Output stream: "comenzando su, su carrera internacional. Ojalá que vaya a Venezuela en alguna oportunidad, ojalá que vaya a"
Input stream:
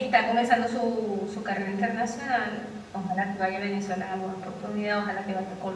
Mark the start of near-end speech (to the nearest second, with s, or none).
none